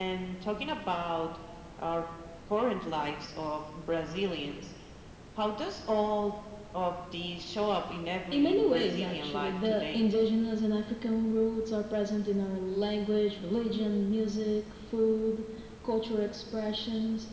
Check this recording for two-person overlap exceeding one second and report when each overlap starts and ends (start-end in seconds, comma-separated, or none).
8.3-10.1